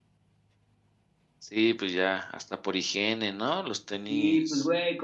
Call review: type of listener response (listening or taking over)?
taking over